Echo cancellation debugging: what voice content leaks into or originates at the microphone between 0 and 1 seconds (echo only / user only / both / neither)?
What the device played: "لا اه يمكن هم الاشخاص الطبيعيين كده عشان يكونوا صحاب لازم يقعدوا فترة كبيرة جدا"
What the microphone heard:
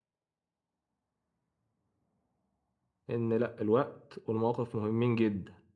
neither